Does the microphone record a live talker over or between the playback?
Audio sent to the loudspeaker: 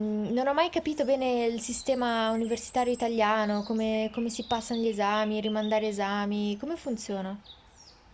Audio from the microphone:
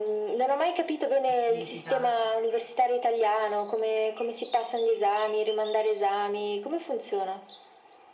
Yes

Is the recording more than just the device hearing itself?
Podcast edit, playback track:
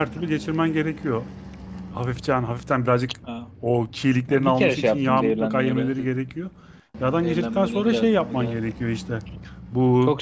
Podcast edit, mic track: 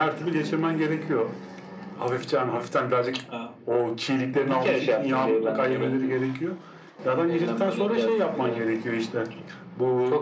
No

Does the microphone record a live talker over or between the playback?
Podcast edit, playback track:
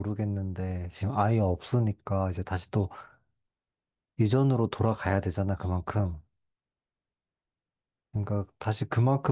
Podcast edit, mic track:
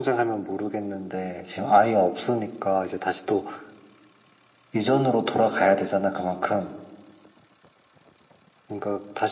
No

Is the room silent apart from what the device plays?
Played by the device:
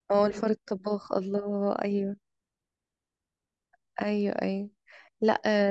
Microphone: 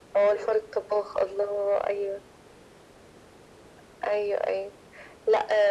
Yes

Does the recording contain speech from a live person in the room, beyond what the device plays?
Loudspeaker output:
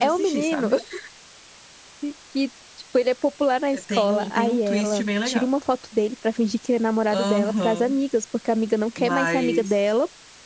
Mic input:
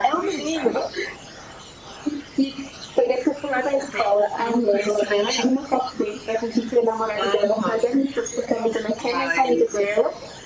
No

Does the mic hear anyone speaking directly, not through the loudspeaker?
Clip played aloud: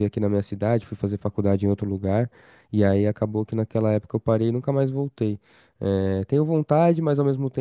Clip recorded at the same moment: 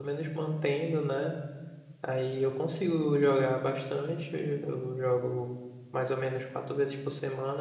Yes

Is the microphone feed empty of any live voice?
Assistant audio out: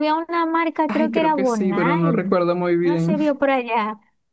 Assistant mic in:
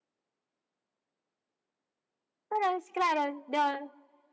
No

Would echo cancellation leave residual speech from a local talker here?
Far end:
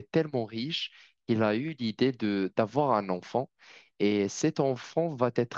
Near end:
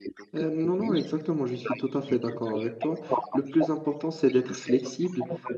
Yes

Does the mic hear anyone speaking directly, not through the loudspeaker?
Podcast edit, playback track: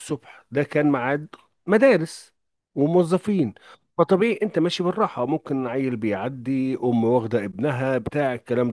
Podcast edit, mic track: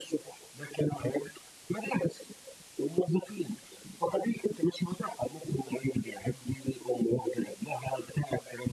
No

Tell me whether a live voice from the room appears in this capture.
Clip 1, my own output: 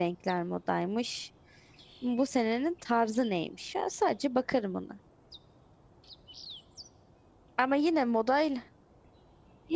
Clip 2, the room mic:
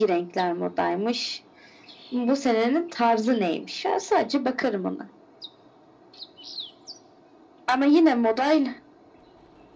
No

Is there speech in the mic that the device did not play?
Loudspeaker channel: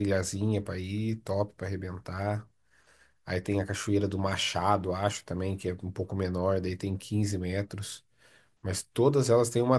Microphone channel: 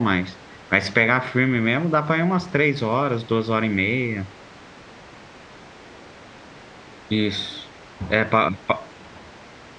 Yes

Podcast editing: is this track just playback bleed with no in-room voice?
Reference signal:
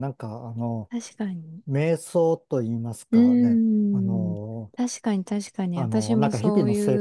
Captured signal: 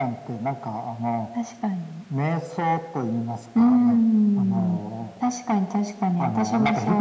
Yes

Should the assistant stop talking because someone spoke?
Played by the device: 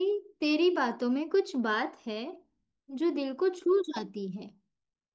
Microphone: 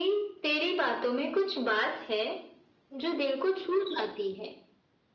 No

